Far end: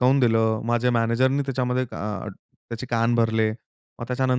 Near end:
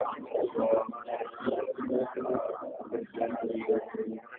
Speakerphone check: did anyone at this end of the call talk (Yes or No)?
No